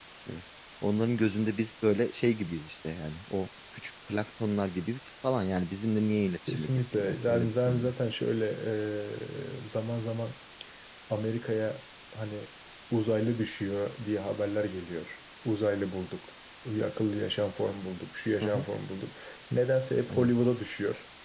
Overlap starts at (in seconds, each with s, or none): 6.5 s